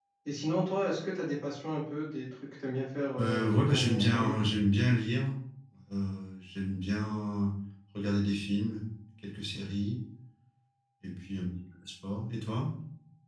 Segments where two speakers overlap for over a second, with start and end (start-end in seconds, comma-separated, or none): 3.2-4.4